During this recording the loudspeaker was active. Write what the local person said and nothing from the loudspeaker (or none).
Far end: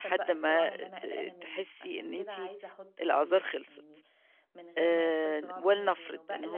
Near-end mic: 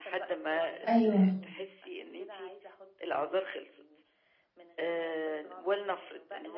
أيوه.